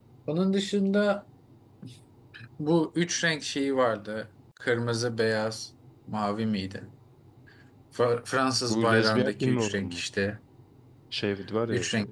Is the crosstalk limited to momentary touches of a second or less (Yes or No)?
No